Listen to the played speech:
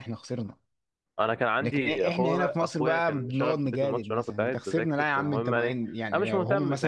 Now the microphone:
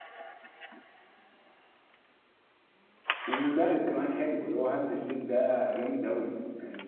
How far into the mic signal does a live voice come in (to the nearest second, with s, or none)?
3 s